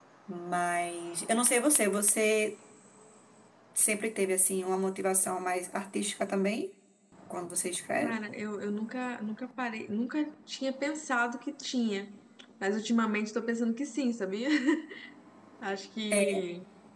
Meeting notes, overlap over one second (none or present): none